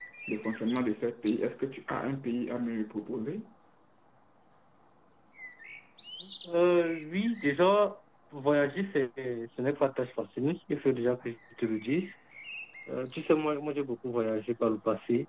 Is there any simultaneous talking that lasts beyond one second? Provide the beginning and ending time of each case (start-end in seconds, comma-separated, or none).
none